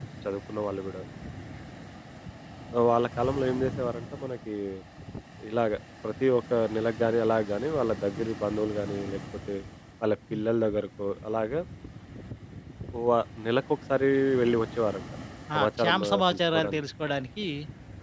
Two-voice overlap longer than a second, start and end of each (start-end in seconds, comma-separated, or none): 15.6-16.8